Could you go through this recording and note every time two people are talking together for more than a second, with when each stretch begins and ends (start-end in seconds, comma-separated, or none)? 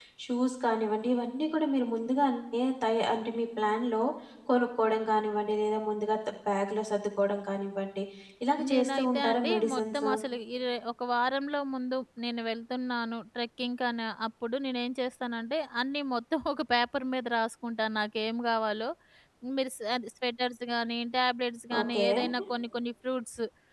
8.7-10.1